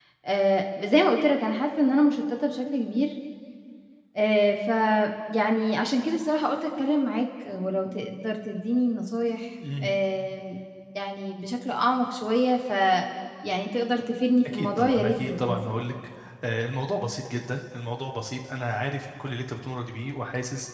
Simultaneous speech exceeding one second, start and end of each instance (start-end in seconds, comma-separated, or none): 14.4-15.8